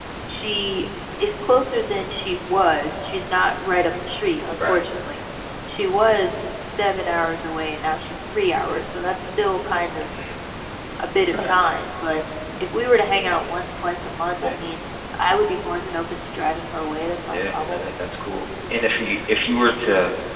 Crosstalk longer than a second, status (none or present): none